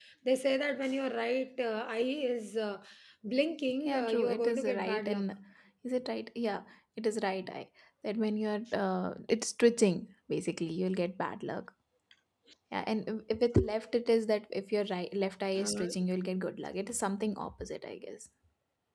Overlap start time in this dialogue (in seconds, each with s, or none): 3.9 s